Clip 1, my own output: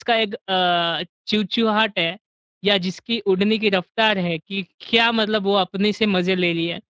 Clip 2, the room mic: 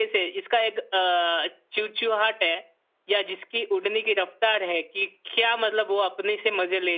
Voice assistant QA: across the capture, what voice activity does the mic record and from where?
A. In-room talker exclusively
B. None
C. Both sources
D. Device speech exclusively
D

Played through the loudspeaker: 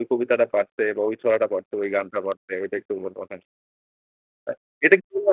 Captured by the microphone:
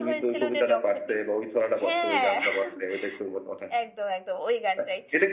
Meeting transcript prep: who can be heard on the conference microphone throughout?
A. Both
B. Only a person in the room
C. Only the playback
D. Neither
A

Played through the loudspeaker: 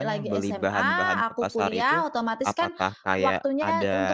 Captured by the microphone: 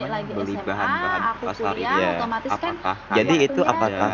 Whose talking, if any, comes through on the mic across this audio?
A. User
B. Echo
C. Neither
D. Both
D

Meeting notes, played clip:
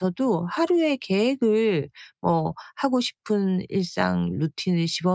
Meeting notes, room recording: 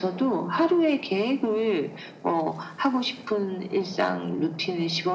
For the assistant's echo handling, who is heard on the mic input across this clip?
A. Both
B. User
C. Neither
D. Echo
D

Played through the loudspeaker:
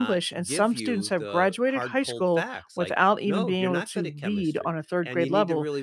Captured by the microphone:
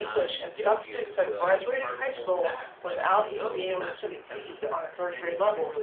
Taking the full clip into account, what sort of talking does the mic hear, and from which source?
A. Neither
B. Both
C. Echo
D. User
C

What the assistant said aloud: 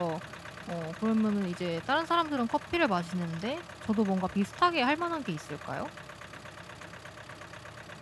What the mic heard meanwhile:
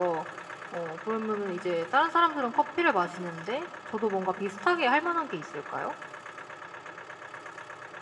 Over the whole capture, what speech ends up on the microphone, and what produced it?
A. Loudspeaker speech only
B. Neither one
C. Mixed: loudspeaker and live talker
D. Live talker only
A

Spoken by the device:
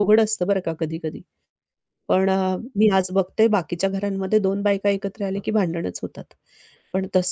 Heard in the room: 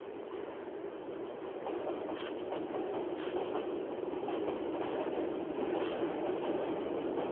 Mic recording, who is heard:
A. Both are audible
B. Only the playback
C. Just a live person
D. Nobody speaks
D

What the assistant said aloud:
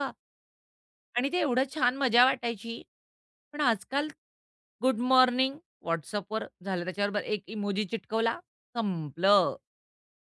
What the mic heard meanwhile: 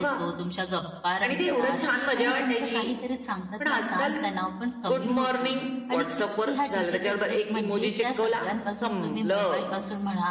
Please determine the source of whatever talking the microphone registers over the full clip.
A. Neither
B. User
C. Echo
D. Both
D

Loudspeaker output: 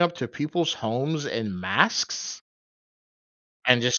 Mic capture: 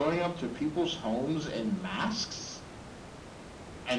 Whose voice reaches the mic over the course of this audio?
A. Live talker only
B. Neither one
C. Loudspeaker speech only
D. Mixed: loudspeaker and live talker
C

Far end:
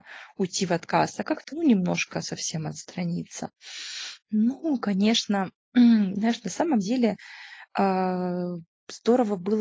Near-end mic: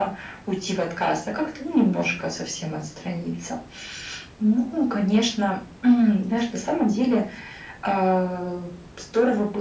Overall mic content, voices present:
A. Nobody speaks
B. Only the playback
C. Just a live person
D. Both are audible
B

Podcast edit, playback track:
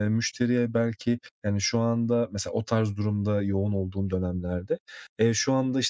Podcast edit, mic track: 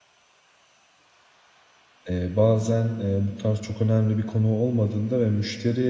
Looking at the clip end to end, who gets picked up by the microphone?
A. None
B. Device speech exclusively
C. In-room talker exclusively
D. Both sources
C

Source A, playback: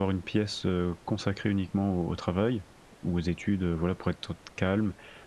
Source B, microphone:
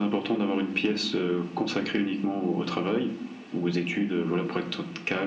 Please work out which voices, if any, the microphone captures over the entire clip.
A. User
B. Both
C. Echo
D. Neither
C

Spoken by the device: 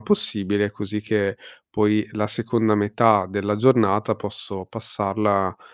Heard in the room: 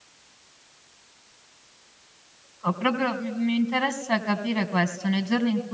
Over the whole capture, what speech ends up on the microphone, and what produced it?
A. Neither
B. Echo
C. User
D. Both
C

